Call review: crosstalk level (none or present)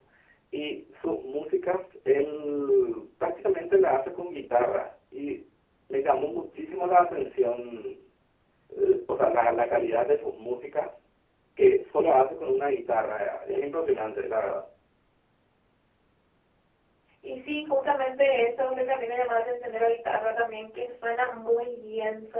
none